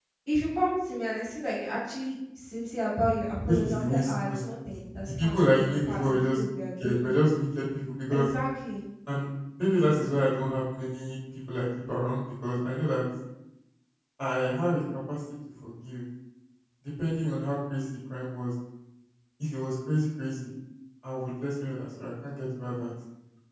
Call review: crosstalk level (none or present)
present